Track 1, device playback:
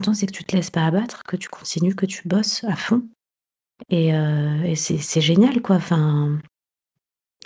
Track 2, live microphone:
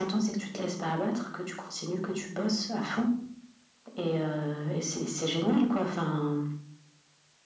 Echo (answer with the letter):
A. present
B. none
A